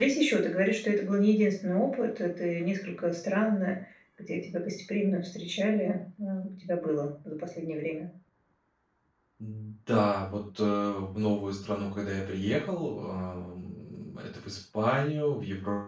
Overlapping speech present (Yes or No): No